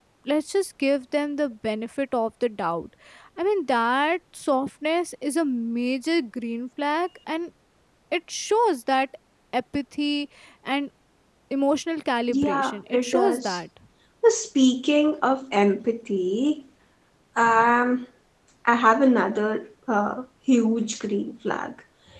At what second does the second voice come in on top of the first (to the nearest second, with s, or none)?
12 s